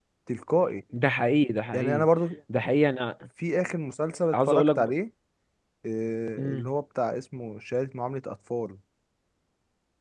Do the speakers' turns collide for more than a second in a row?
No

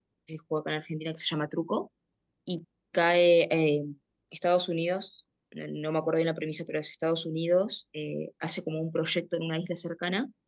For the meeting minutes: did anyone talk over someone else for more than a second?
No

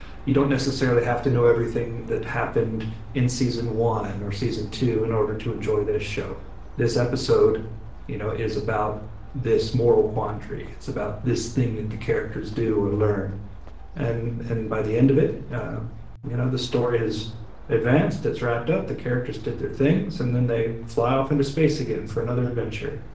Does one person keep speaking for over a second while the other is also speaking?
No

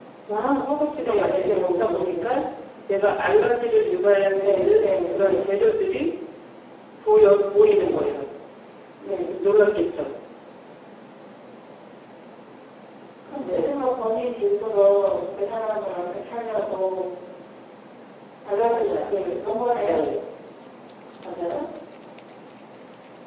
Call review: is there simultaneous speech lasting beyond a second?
Yes, from 1.0 s

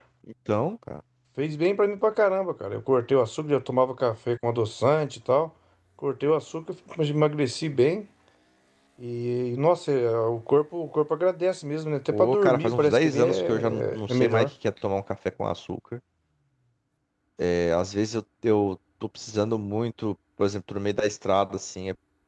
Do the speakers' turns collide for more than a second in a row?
Yes, from 12.1 s

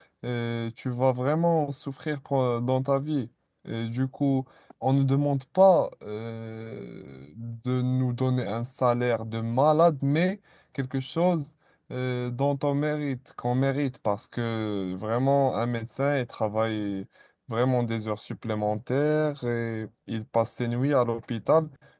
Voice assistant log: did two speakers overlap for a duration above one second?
No

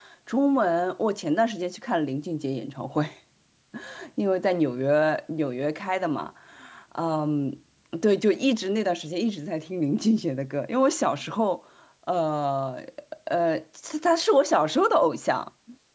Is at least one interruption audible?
No

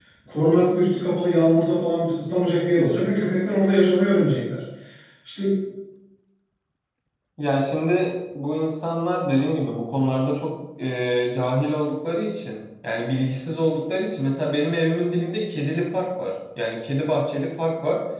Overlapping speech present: No

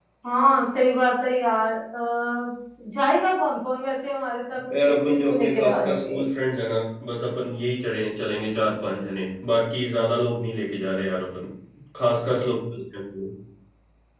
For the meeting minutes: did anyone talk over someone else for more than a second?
Yes, from 4.7 s

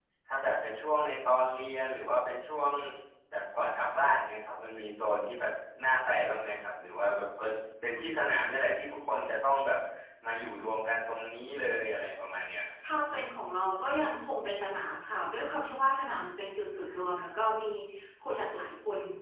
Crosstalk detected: No

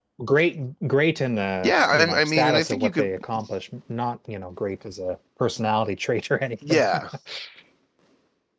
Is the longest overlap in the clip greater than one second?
Yes, from 1.6 s

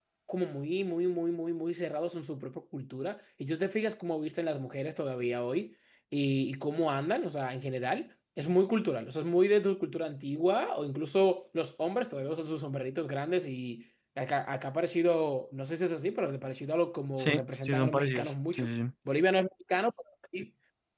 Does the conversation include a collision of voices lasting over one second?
Yes, from 17.2 s

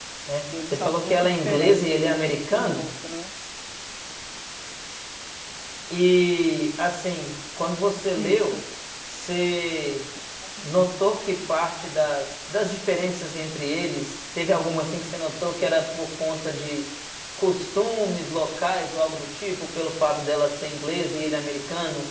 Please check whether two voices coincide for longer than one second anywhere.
Yes, from 0.7 s

